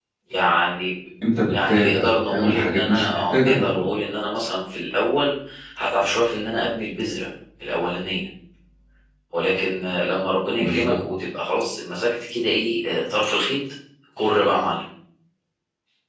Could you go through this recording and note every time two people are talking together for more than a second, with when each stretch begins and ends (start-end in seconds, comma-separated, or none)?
1.3-3.9